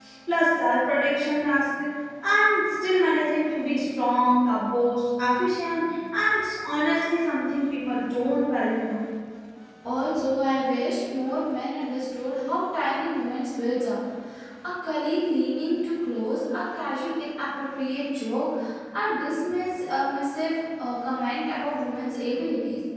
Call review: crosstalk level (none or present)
none